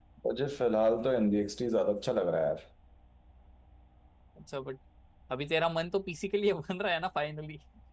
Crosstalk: none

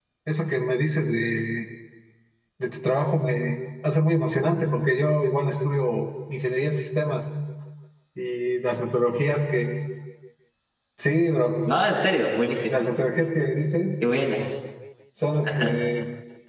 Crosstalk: none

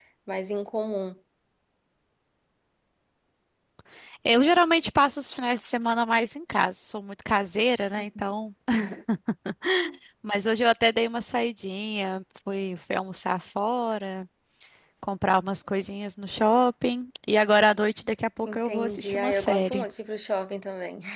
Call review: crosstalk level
present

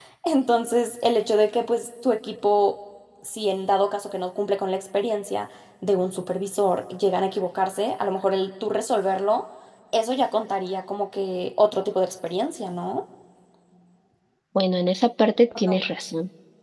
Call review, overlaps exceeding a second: none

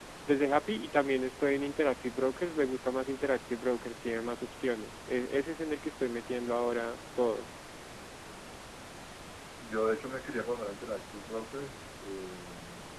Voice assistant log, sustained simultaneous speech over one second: none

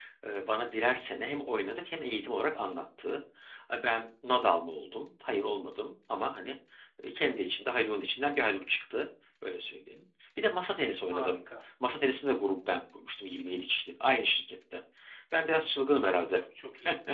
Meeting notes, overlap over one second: none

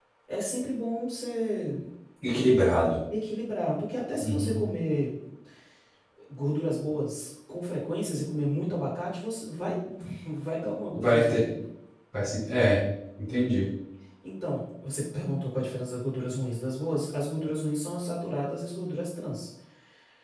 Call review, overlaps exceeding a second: none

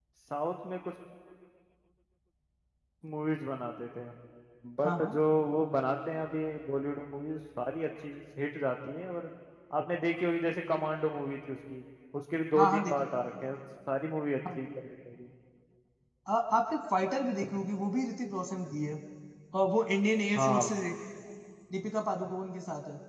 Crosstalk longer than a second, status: none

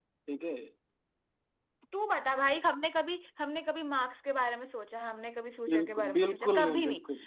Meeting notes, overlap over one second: present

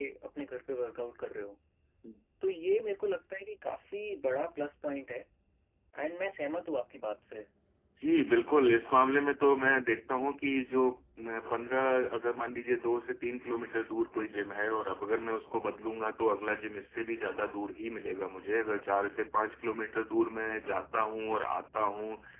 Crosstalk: none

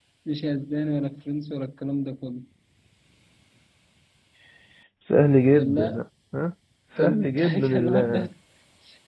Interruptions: present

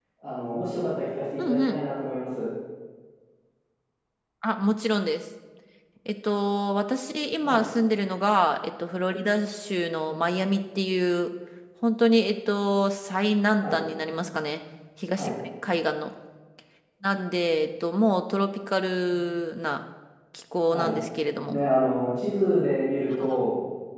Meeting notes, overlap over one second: none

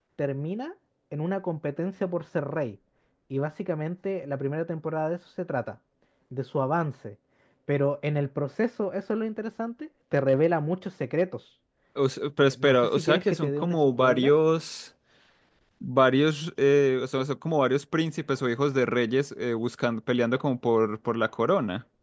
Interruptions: present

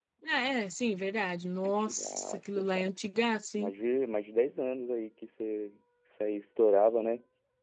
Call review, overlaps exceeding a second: present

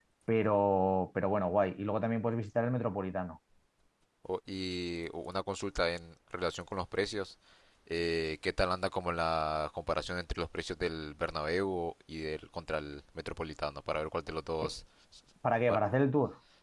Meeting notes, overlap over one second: none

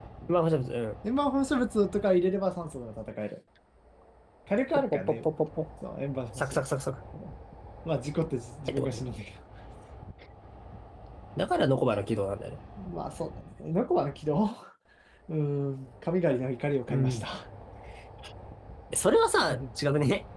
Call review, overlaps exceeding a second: none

